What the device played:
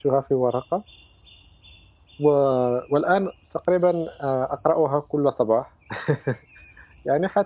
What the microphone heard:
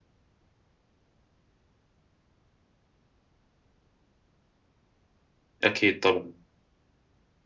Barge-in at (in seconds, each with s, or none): 5.6 s